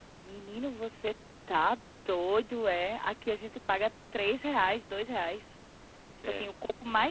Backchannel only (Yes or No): Yes